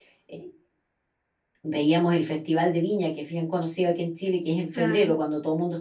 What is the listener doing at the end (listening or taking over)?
listening